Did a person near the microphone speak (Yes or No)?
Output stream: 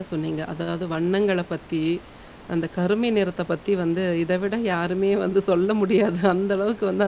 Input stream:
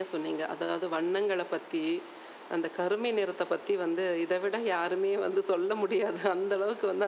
No